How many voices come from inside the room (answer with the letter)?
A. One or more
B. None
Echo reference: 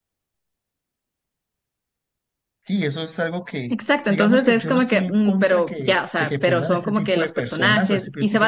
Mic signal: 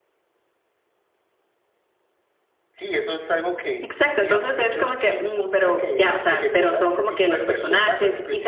B